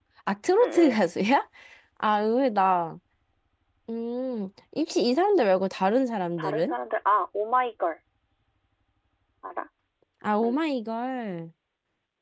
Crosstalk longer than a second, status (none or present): none